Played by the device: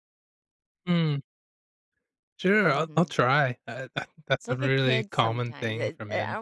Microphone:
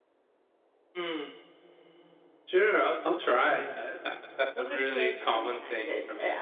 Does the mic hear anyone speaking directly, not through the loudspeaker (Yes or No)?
Yes